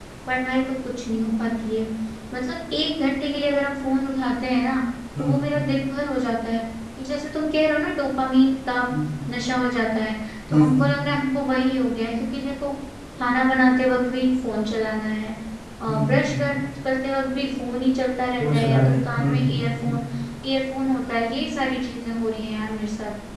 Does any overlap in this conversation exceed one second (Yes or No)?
Yes